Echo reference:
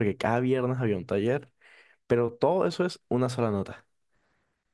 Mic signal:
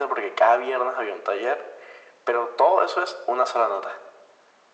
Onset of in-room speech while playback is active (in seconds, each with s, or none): none